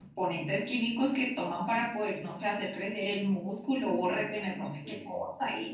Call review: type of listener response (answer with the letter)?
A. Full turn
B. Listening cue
B